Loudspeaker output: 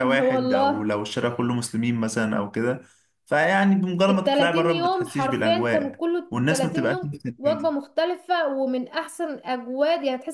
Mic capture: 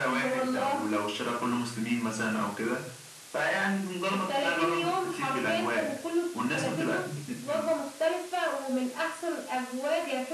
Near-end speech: none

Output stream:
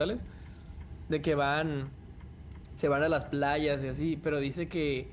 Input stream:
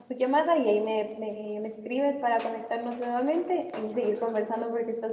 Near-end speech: present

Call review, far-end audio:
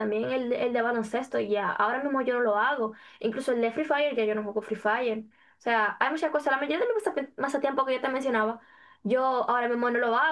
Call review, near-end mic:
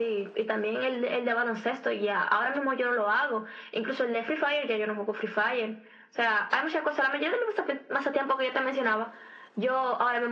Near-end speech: none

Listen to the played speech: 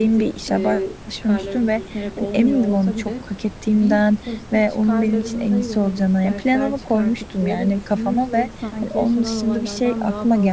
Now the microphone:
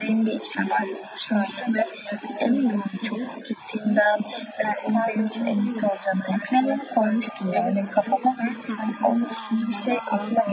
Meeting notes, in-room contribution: none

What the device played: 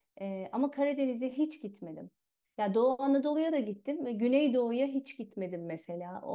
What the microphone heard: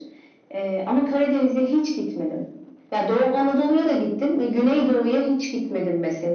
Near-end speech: none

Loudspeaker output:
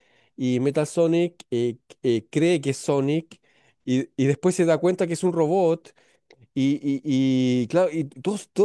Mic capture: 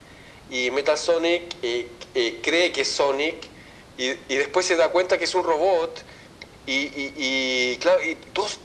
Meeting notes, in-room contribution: none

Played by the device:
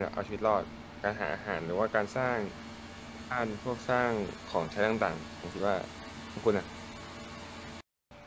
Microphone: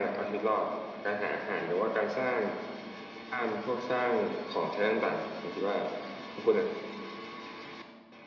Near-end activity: none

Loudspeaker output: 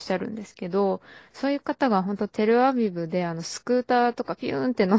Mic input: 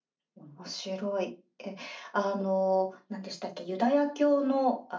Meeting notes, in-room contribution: present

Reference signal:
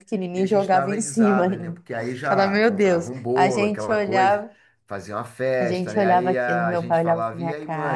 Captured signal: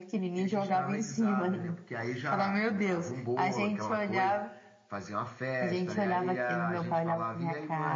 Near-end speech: none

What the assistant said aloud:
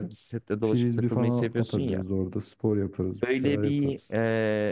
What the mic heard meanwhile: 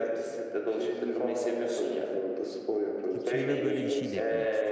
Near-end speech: present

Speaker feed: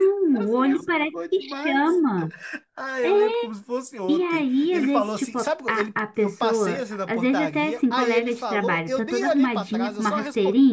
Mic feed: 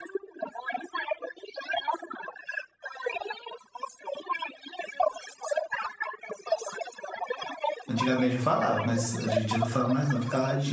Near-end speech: present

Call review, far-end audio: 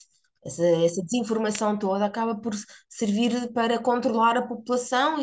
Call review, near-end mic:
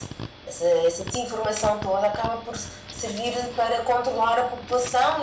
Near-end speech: none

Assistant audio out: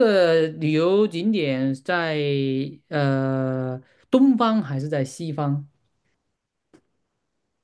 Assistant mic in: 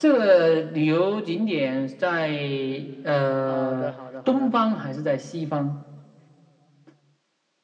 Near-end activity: present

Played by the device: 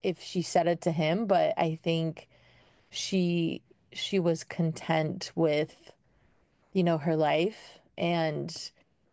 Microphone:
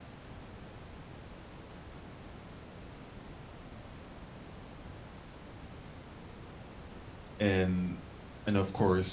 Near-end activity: present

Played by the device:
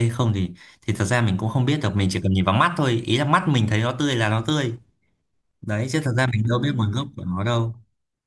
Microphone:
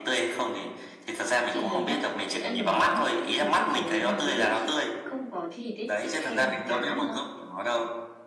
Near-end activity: present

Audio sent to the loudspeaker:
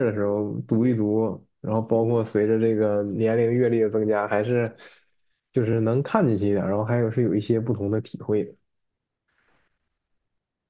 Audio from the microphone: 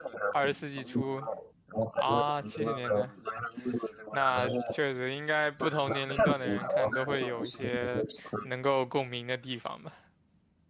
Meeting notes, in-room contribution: present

